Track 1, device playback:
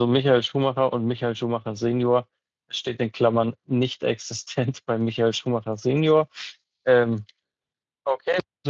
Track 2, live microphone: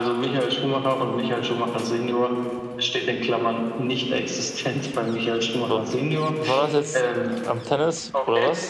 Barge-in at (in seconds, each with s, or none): 5.7 s